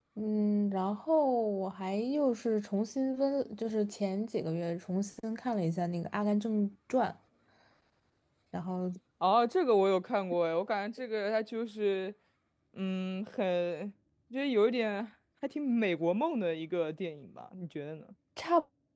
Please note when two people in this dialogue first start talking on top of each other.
none

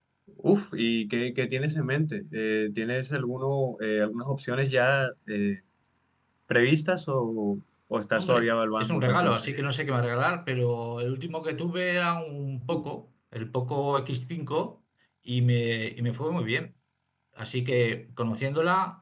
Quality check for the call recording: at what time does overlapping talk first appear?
8.2 s

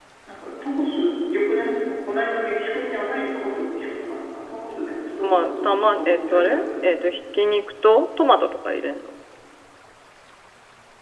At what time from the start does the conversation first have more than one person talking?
5.2 s

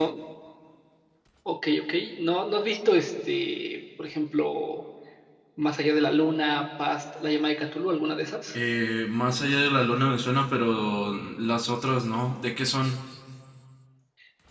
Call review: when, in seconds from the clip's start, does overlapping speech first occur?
none

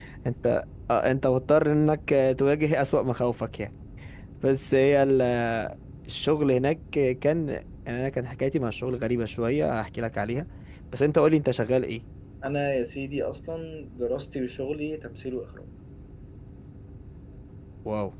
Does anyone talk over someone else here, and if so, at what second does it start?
none

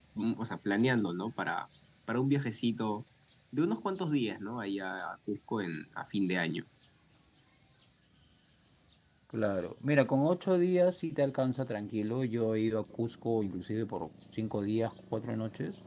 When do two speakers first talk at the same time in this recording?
none

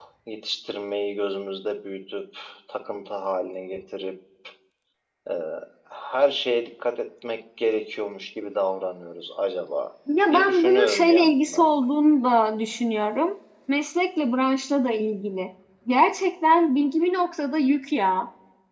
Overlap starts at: 10.1 s

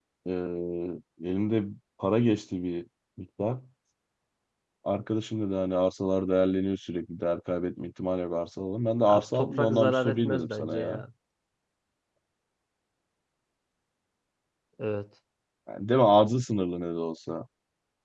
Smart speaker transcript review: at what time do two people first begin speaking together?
9.0 s

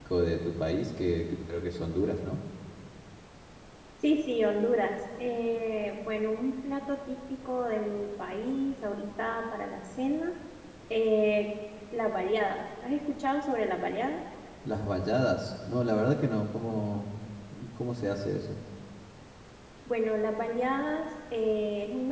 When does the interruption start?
none

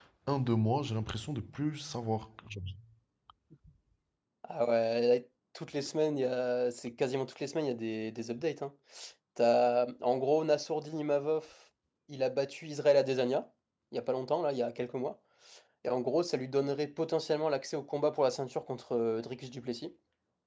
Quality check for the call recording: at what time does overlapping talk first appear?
none

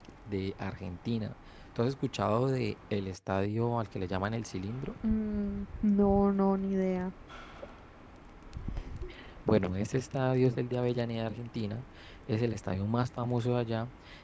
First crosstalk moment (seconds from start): none

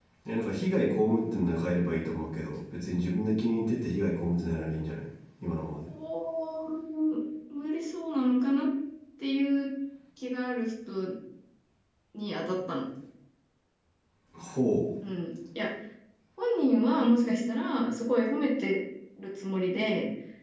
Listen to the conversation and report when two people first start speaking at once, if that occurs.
none

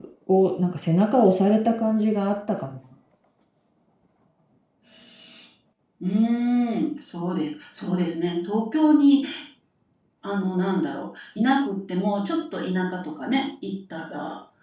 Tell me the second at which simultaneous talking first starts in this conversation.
none

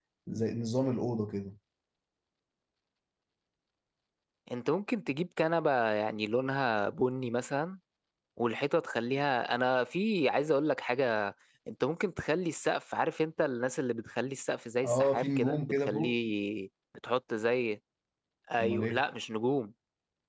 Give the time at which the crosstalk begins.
14.8 s

